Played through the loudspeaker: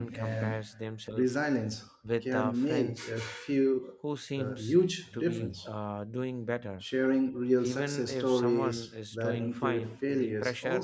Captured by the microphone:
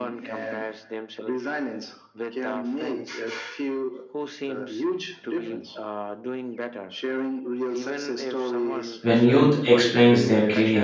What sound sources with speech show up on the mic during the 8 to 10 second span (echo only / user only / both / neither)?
both